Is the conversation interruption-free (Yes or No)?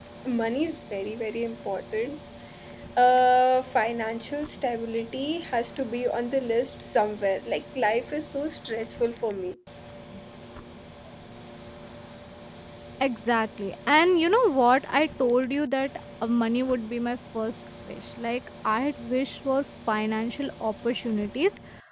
Yes